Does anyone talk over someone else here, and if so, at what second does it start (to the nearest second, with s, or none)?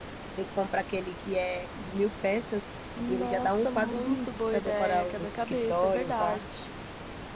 3 s